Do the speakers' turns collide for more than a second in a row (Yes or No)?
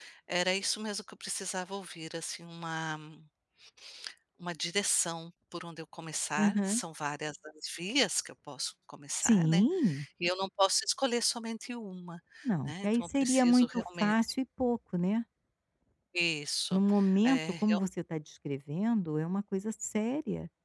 Yes